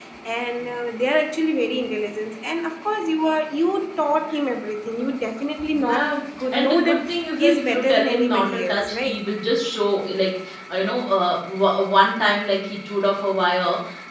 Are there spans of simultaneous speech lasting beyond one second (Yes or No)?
Yes